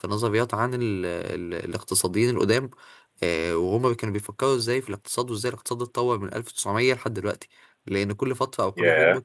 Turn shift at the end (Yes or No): No